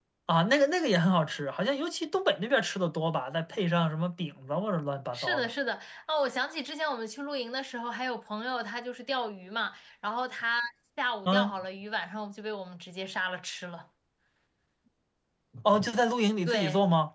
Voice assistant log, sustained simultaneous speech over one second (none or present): none